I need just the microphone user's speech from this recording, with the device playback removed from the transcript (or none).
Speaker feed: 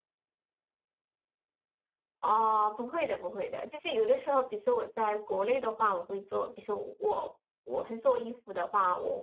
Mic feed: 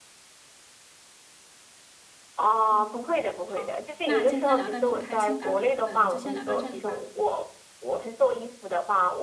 嗯，好，那今天聊的挺开心的，嗯、就先聊到这里吧，